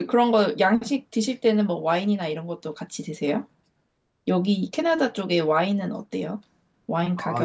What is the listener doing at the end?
taking over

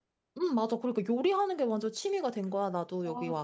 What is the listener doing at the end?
taking over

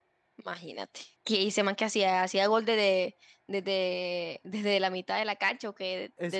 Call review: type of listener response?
taking over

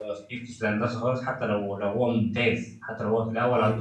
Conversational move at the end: listening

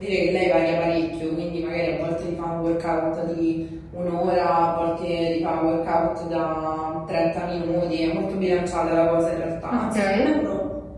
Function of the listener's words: listening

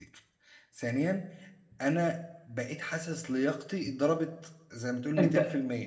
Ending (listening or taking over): taking over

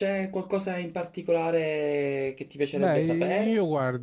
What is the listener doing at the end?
taking over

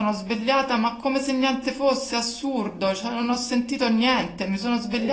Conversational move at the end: listening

